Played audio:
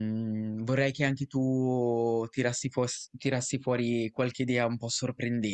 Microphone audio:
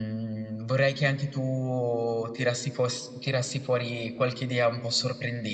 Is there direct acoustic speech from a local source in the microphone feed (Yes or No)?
No